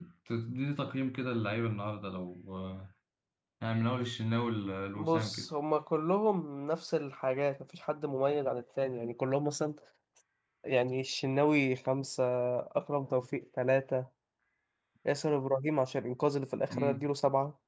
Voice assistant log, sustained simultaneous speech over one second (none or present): none